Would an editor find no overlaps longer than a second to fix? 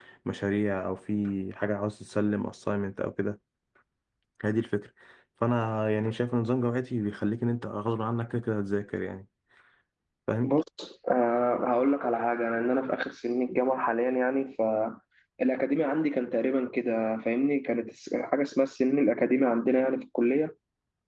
Yes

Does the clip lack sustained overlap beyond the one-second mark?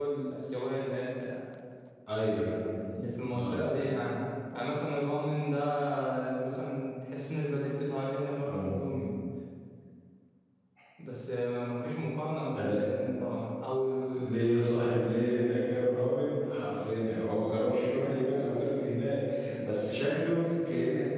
Yes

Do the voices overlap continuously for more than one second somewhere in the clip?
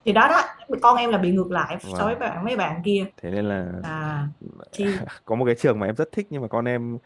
No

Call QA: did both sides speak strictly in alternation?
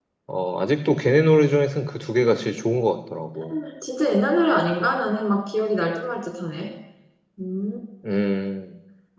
Yes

